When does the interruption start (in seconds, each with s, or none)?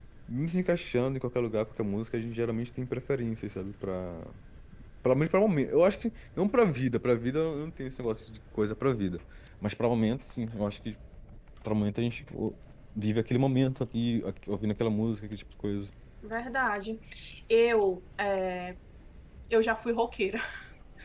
none